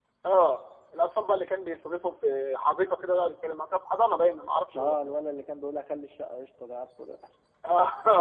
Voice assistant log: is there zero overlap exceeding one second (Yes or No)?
Yes